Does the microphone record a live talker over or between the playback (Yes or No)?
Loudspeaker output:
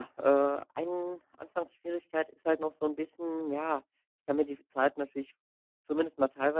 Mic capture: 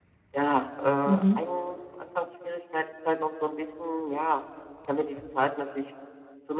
Yes